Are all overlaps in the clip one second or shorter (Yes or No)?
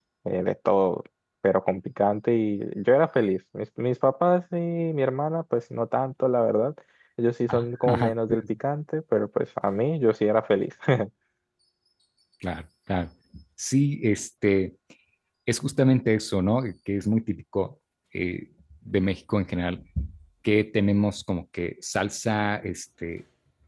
Yes